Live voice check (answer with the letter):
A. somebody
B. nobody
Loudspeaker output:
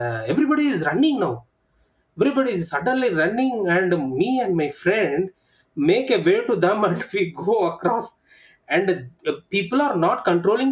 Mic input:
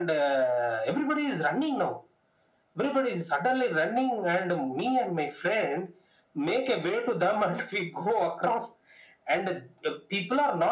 B